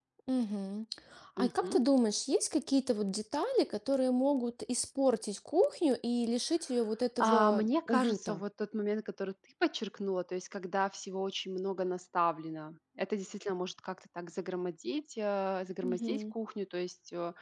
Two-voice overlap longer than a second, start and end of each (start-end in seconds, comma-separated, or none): 7.2-8.4